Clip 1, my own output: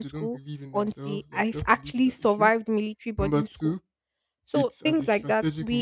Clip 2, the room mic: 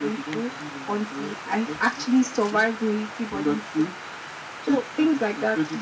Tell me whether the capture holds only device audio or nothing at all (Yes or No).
Yes